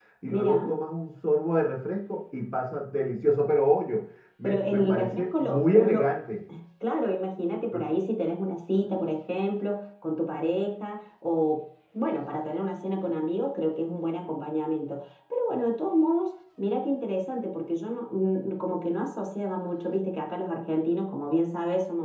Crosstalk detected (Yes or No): Yes